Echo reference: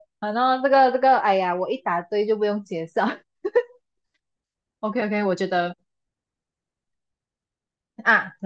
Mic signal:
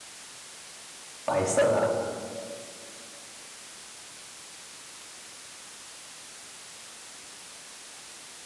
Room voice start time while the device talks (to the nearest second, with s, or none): 1 s